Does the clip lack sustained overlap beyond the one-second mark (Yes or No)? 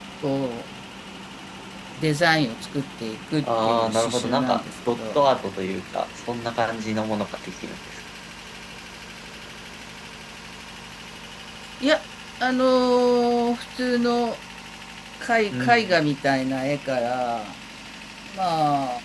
No